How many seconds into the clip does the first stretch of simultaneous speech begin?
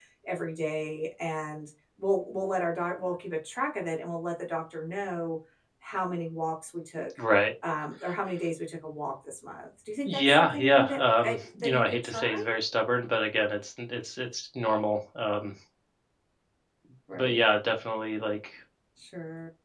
10.1 s

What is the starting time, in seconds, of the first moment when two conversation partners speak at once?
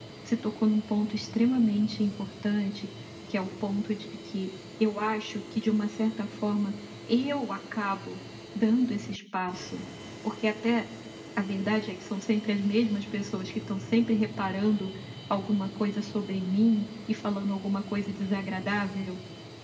none

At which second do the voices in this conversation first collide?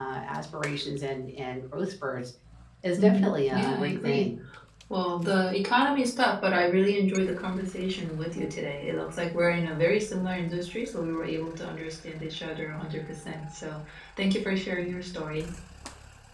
3.0 s

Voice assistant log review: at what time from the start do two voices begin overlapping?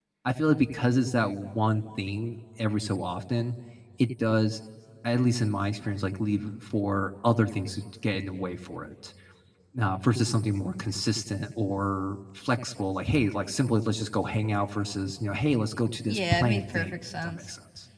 16.1 s

